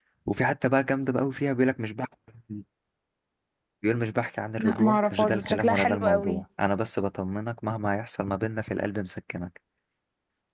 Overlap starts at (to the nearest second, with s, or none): 5 s